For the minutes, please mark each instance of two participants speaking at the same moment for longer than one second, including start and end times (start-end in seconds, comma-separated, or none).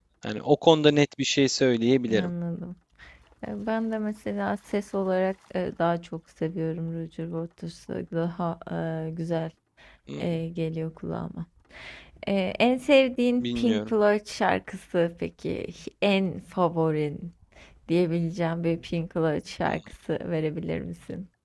none